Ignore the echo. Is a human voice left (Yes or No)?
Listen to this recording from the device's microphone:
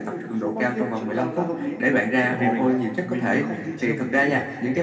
Yes